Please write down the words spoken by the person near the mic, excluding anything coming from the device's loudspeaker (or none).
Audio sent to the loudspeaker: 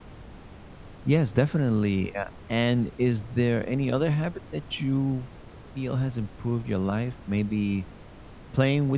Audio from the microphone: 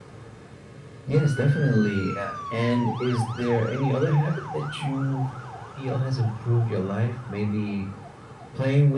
none